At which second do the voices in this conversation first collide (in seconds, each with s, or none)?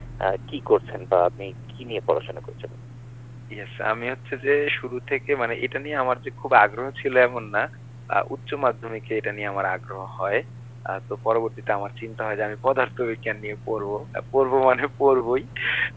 none